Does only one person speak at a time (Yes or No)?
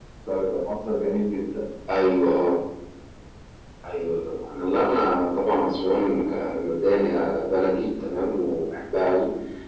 Yes